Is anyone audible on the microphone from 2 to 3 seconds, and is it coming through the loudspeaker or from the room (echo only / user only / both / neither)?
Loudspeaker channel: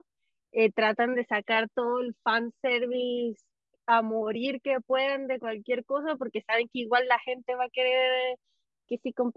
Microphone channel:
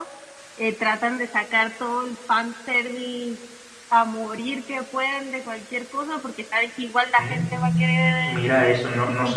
echo only